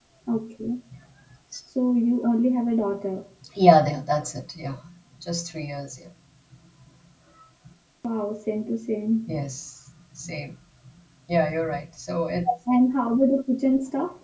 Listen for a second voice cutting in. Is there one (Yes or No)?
No